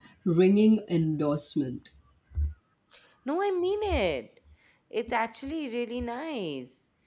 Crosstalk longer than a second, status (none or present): none